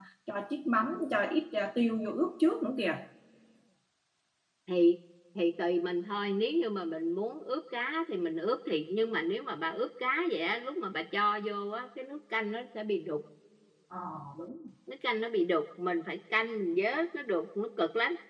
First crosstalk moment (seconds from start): none

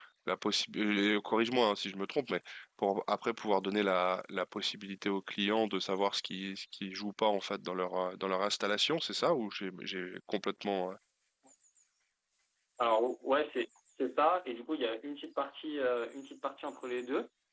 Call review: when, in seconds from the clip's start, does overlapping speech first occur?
none

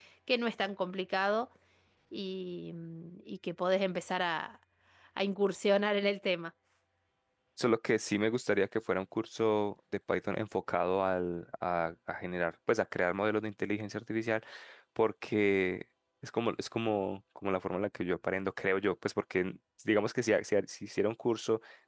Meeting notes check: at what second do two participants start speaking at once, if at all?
none

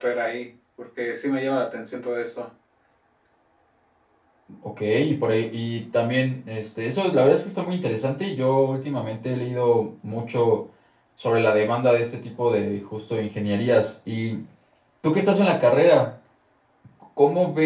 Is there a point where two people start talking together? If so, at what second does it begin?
none

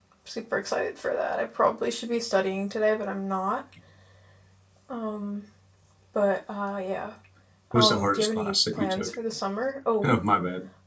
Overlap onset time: 7.7 s

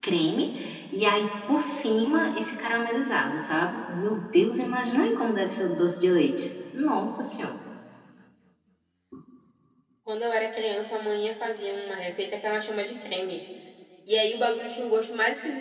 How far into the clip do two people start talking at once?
none

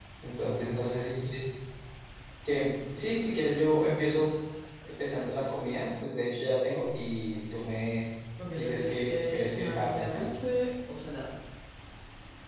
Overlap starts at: 8.5 s

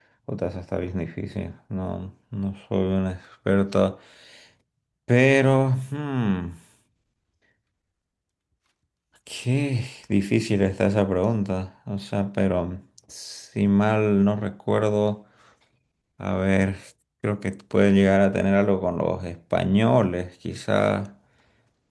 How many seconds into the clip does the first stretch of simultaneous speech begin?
none

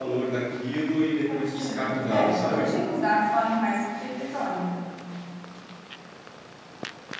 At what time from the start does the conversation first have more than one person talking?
1.3 s

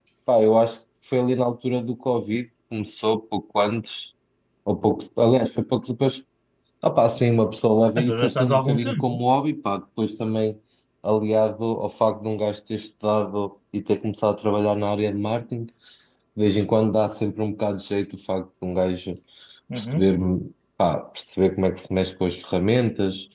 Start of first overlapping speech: 8.0 s

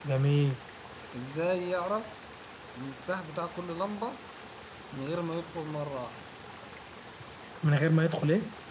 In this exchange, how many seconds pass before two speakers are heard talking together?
none

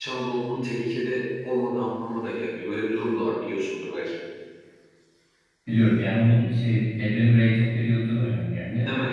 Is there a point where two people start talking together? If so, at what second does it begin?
none

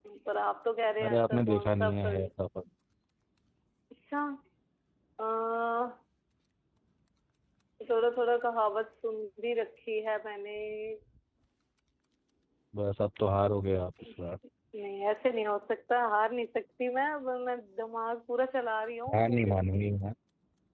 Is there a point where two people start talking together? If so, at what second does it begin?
1.0 s

